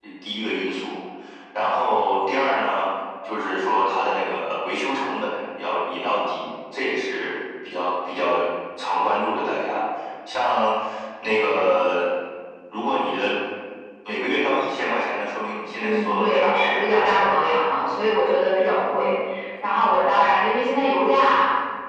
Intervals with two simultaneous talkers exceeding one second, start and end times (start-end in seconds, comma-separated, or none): 15.8-17.2